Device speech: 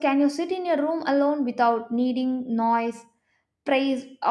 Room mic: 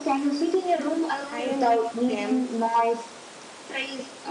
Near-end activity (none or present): present